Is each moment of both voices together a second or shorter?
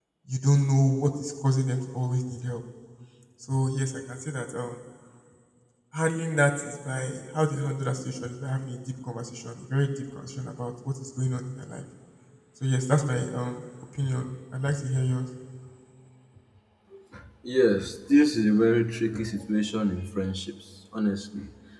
Yes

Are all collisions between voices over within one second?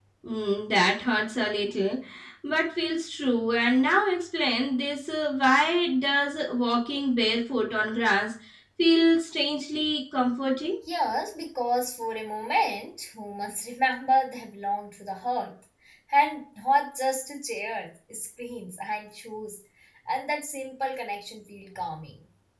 Yes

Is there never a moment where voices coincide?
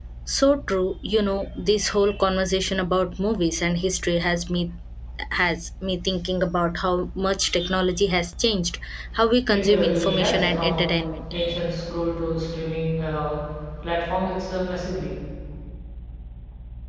No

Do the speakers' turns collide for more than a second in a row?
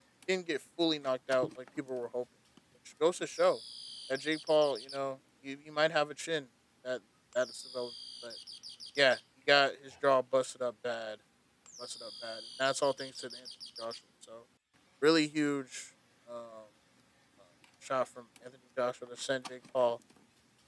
No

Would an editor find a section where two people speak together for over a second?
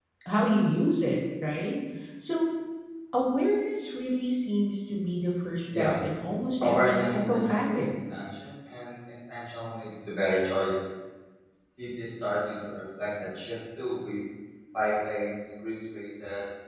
Yes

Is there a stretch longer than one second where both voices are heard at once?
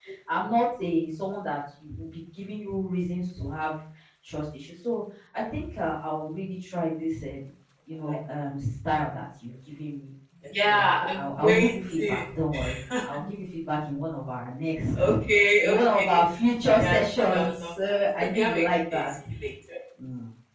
Yes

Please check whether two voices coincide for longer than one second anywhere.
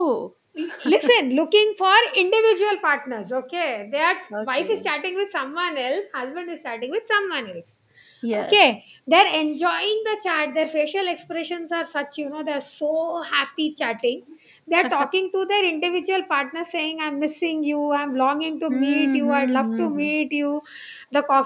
Yes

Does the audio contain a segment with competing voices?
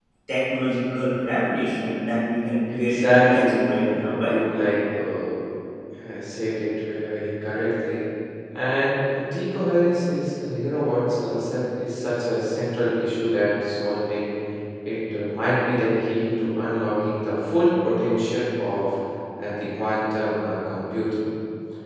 Yes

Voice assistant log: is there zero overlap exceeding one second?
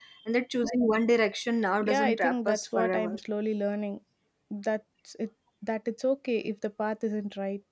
No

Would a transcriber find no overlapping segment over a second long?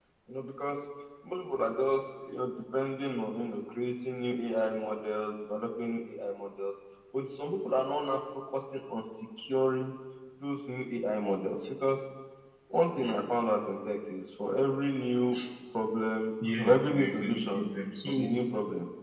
No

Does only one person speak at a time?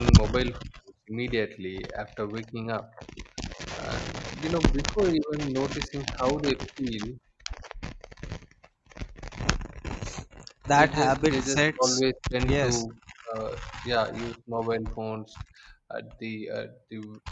No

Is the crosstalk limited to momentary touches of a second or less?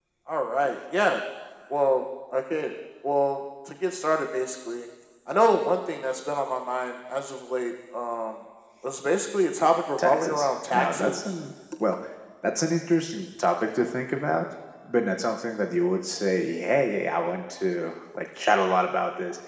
No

